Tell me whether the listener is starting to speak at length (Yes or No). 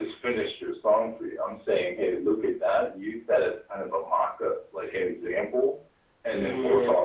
No